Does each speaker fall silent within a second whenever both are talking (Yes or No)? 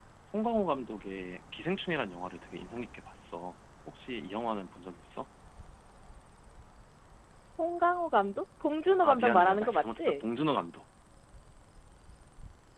No